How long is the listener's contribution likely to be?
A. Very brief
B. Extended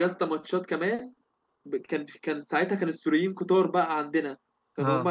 A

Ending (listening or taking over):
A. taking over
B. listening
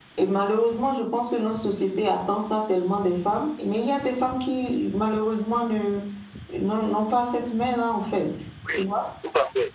A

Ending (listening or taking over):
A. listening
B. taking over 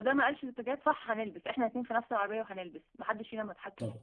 B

